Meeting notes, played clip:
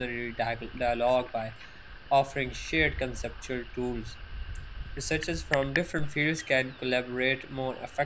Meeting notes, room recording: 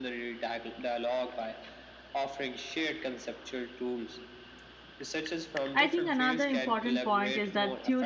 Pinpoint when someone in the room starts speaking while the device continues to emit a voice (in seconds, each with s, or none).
5.7 s